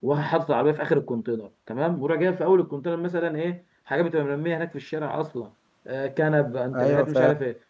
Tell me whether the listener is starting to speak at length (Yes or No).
No